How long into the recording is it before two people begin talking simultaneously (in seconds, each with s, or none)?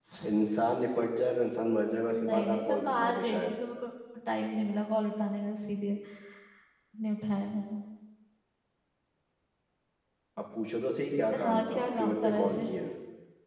2.1 s